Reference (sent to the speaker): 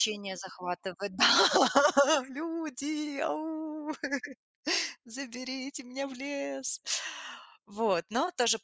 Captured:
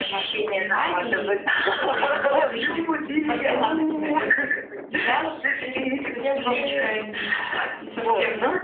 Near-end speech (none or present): present